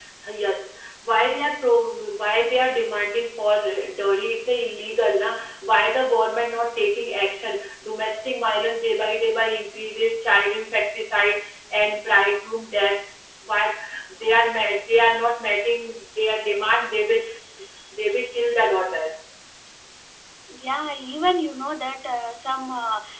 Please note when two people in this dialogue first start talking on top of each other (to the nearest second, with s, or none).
none